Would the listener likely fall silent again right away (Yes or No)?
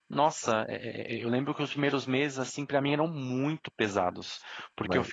Yes